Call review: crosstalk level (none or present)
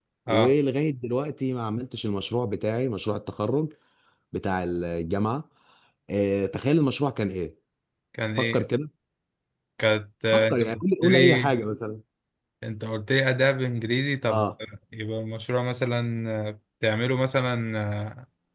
present